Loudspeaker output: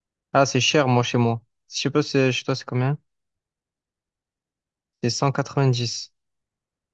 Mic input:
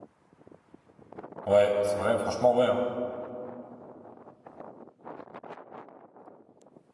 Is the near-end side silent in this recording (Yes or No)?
No